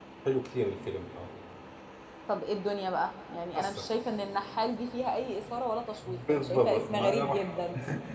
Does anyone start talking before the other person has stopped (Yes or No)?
Yes